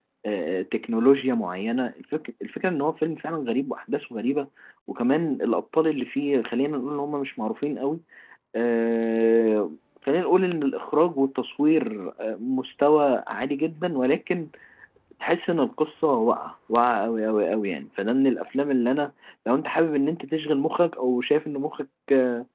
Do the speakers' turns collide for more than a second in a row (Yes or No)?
No